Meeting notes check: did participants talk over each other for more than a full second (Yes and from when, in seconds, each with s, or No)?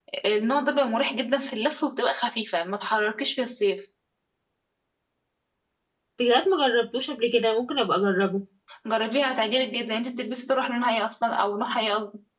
No